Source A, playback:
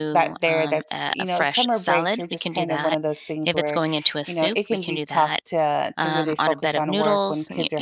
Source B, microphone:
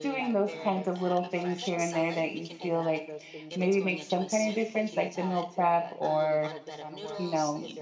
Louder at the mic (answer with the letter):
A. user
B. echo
A